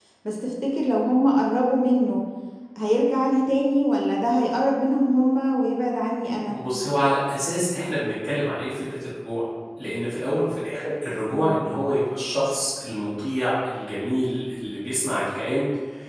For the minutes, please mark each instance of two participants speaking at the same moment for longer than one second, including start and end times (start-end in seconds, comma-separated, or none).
none